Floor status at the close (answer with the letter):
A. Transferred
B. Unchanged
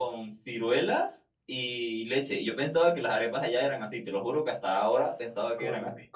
A